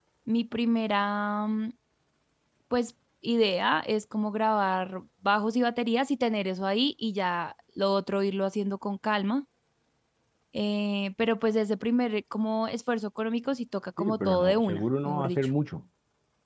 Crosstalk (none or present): present